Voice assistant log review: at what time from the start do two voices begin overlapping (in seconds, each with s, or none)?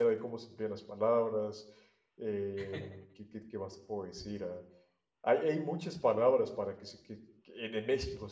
none